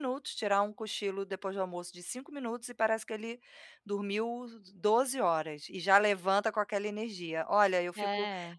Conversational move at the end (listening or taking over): listening